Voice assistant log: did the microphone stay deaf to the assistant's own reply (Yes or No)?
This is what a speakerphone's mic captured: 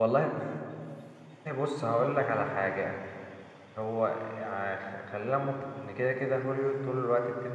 Yes